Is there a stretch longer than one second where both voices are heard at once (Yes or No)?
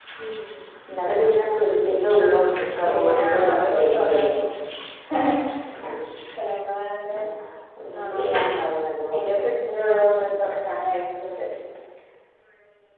Yes